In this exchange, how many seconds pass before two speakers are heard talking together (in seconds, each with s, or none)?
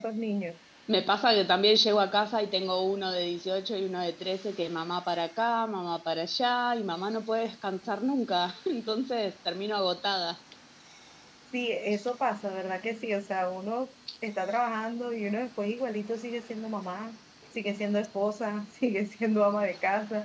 none